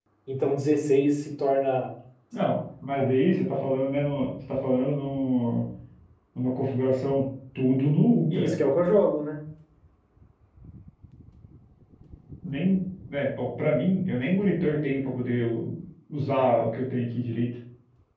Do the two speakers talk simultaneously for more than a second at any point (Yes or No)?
No